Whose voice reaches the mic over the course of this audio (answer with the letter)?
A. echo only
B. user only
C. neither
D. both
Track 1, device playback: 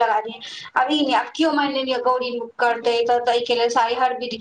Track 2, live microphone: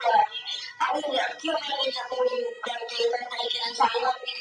A